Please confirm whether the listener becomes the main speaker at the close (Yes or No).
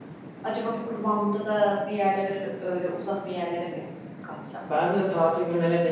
Yes